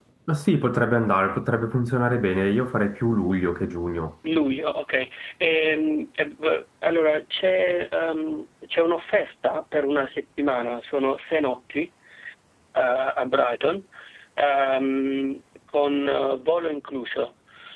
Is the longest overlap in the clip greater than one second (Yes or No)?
No